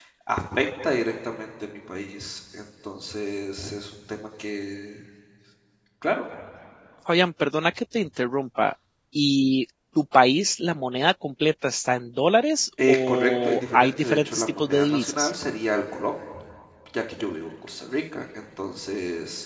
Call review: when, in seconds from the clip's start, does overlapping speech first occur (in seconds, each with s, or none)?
12.8 s